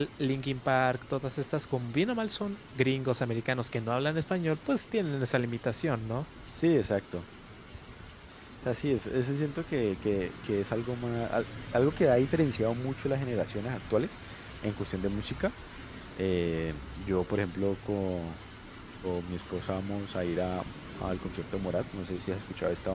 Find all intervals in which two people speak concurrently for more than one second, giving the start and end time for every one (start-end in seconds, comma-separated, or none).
none